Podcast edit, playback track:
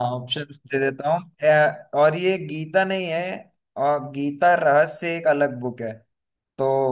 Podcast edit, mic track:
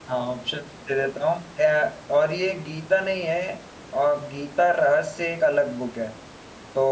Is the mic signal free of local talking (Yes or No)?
Yes